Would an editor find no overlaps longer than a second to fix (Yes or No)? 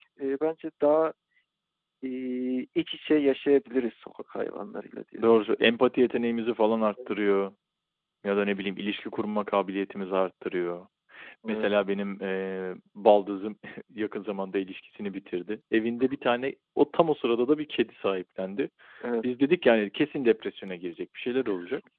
Yes